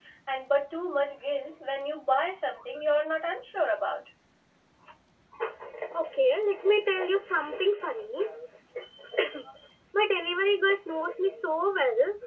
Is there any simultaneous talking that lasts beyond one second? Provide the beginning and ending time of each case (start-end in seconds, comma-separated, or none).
none